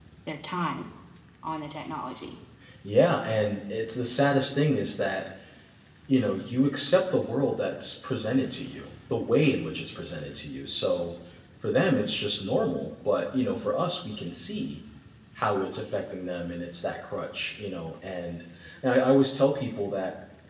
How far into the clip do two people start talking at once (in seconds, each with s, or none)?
none